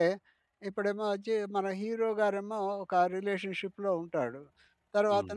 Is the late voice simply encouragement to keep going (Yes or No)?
Yes